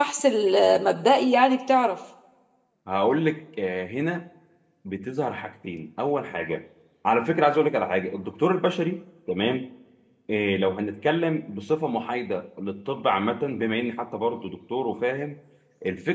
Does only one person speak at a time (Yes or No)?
Yes